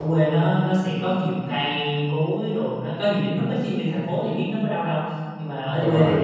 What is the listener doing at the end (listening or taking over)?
listening